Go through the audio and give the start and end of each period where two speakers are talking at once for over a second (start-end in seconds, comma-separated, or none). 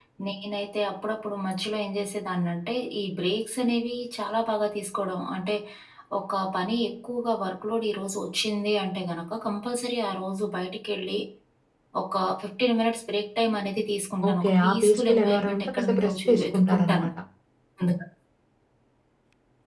14.3-17.1